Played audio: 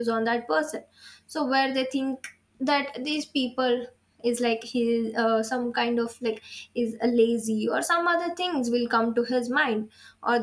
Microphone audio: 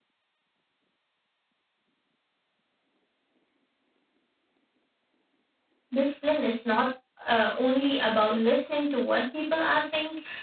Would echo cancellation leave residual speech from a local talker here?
Yes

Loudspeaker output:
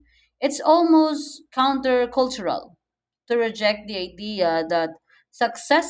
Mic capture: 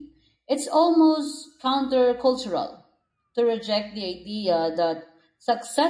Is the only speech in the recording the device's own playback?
Yes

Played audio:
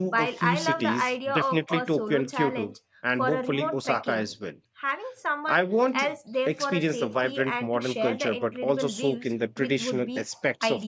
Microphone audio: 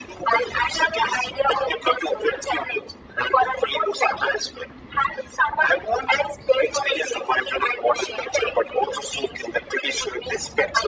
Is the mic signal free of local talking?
Yes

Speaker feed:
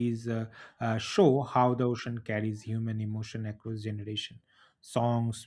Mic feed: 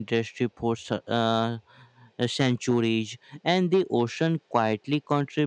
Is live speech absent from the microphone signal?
No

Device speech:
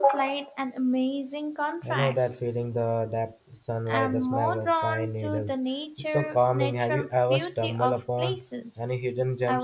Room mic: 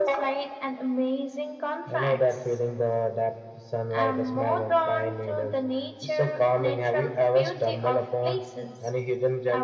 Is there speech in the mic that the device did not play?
No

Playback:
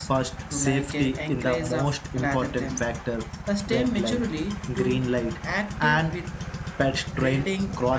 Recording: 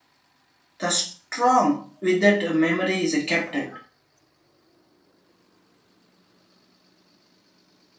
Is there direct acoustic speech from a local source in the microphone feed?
Yes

